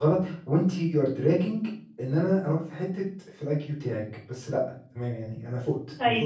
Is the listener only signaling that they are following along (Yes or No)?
No